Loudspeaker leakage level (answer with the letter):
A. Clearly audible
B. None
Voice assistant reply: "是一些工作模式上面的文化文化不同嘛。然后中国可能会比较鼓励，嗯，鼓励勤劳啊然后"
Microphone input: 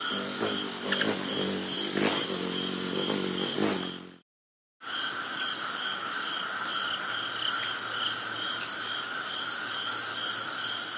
B